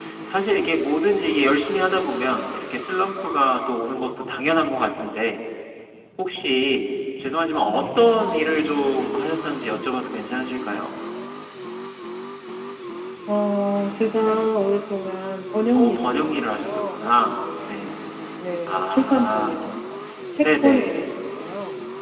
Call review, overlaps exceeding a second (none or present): present